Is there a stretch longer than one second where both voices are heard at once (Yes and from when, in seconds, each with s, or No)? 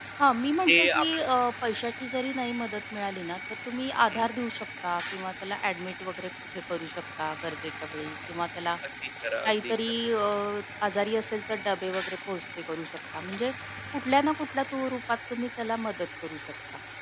No